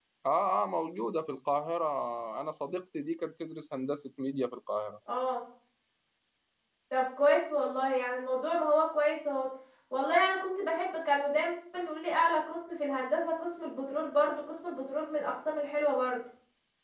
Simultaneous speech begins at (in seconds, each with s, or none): none